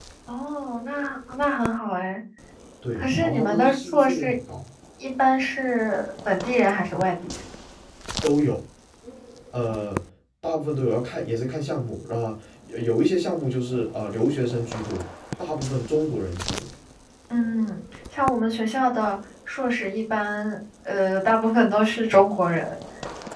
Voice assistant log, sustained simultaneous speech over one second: present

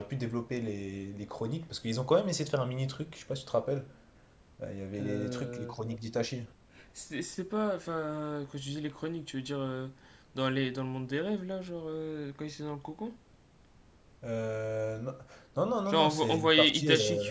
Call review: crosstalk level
present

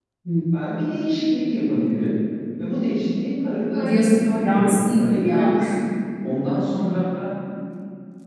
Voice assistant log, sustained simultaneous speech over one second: present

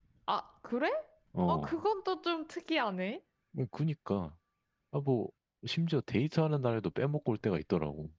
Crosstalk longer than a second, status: none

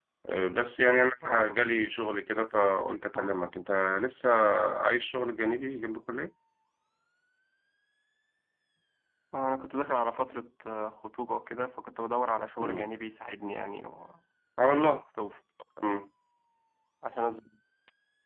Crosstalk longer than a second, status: none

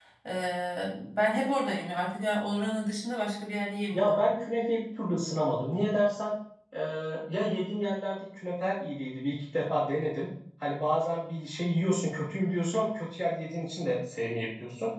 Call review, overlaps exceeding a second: none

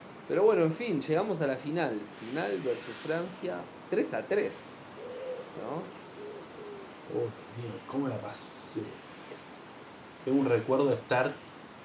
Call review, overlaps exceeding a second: none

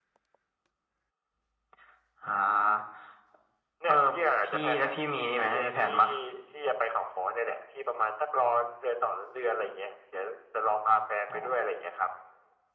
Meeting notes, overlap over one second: present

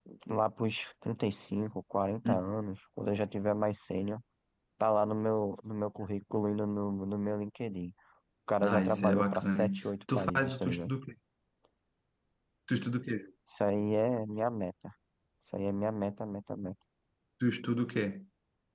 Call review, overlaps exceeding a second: present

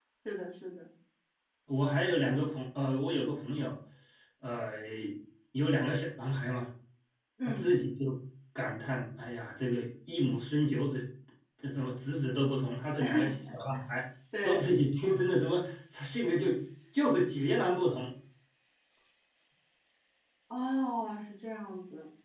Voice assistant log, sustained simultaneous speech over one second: none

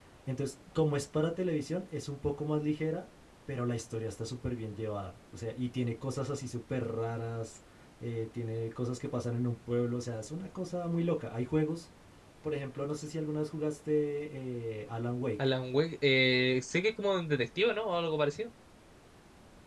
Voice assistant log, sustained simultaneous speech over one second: none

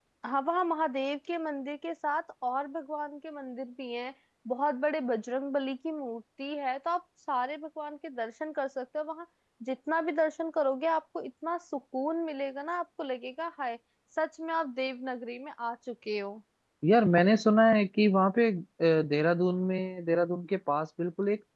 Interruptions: none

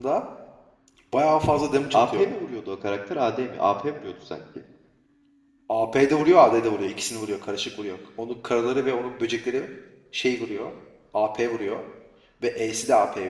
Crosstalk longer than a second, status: none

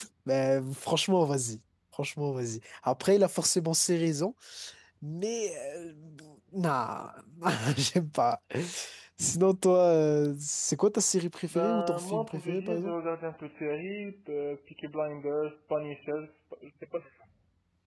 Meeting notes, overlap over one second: present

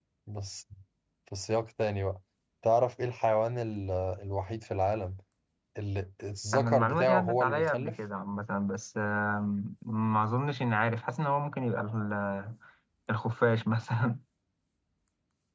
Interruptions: present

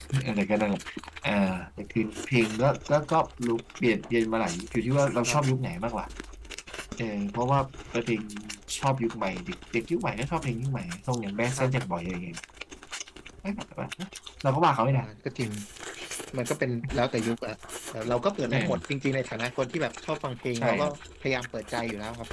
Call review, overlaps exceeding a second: none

